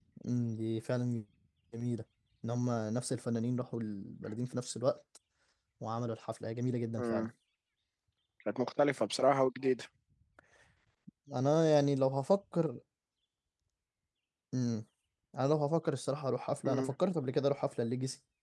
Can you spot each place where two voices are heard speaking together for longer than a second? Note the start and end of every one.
none

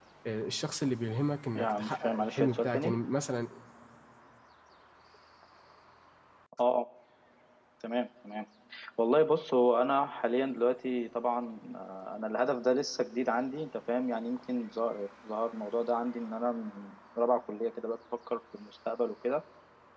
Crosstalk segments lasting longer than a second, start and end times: 1.6-3.0

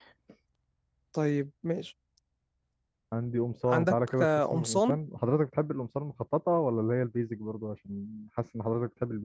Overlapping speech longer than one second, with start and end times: 3.7-5.0

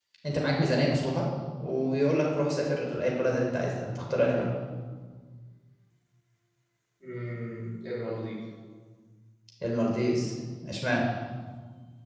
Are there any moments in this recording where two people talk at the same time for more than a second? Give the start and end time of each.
none

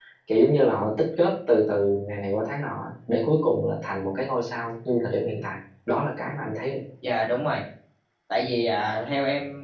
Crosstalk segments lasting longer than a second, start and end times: none

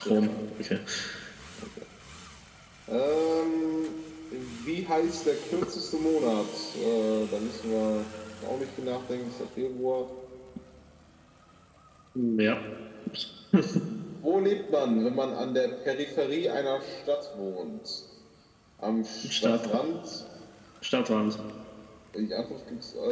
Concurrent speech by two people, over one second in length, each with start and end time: none

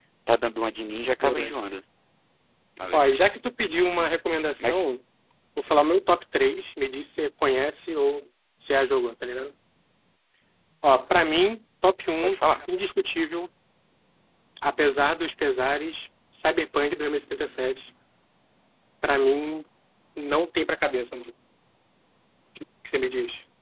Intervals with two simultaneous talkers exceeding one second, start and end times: none

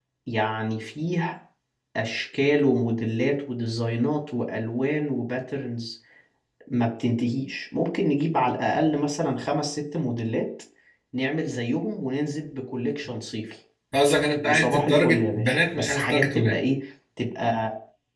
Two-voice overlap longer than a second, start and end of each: 14.4-16.6

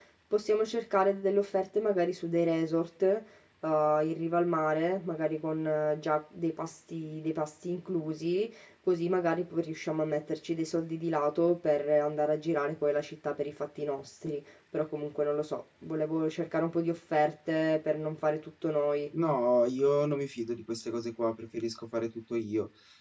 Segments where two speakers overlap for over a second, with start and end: none

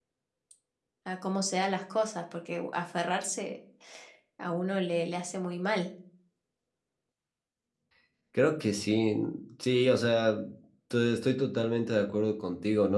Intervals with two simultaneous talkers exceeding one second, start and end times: none

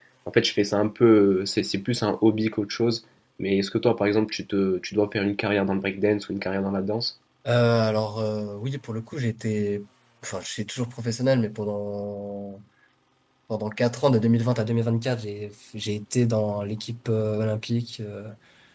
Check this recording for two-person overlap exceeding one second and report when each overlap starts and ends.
none

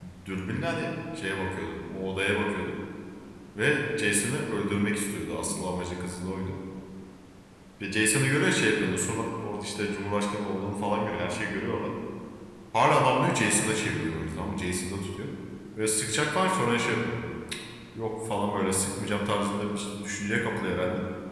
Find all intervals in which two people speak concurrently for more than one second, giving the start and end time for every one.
none

